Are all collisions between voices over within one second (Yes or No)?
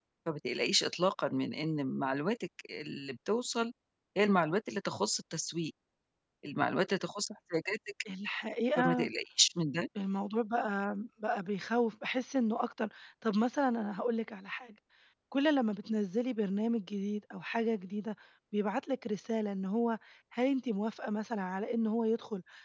Yes